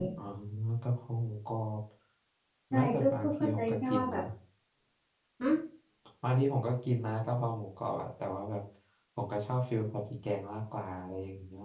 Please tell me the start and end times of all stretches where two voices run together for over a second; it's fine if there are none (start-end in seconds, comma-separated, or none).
2.7-4.2